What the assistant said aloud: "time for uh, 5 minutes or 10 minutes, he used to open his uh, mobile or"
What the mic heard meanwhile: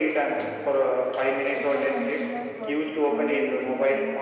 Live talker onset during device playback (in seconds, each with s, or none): 1.5 s